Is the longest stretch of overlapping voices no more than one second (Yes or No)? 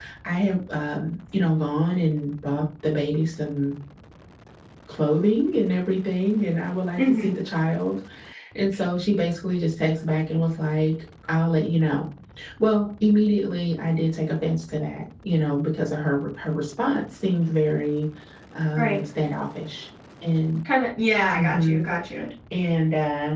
Yes